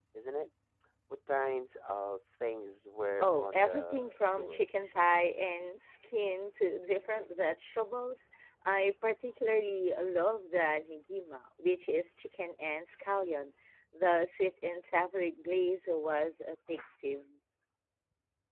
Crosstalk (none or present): present